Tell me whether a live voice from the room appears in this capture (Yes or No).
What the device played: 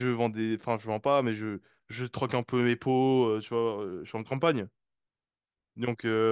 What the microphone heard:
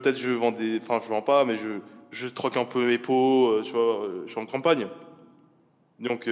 No